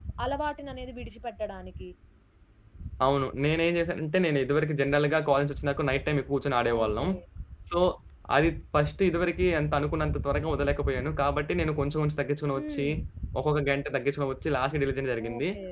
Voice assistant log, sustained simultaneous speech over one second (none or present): none